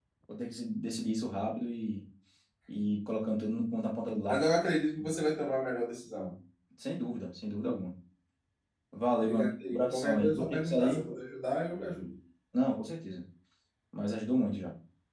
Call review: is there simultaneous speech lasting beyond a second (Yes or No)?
Yes